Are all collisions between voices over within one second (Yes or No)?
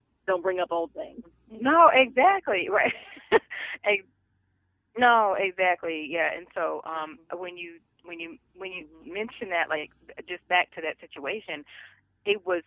Yes